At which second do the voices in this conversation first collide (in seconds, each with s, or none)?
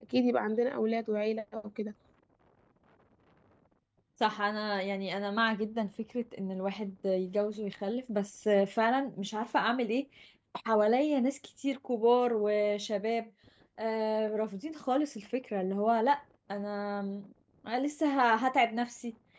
none